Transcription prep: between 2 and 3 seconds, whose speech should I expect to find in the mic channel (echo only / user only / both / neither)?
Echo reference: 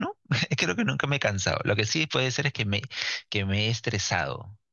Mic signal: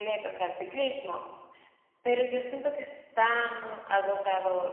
user only